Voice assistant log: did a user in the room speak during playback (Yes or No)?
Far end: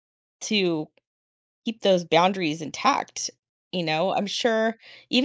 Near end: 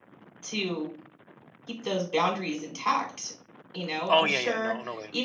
Yes